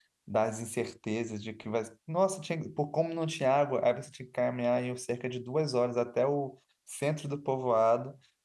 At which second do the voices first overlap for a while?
none

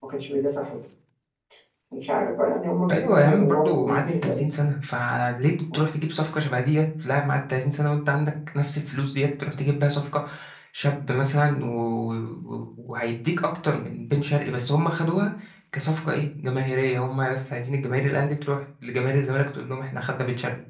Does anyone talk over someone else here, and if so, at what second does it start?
2.9 s

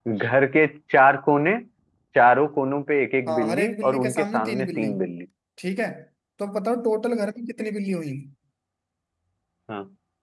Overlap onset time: 3.3 s

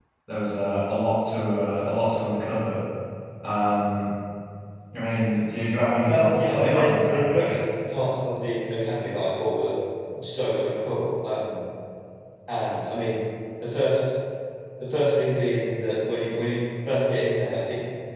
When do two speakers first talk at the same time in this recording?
6.0 s

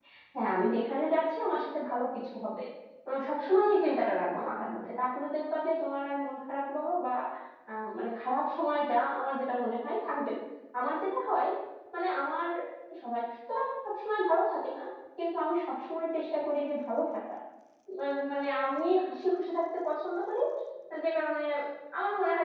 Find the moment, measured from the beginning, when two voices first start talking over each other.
none

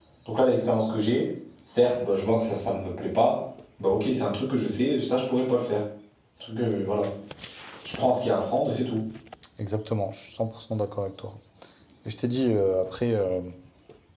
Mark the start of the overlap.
none

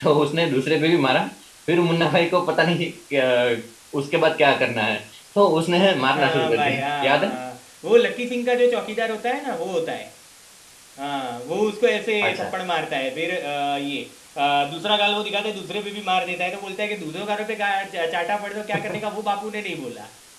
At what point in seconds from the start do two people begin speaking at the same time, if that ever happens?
6.0 s

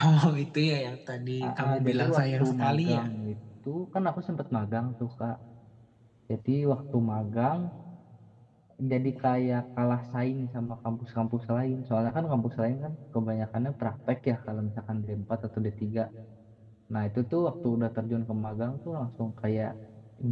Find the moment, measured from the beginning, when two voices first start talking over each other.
1.4 s

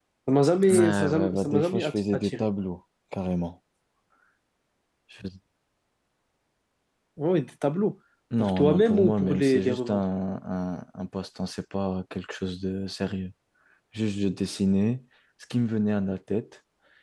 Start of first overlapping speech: 0.7 s

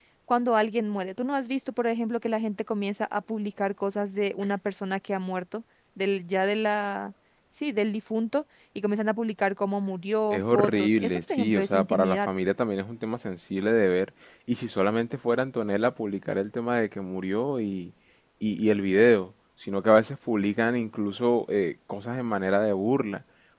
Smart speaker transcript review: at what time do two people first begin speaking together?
10.3 s

